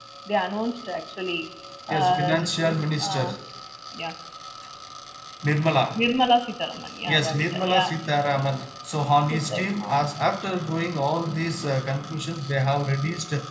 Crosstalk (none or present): present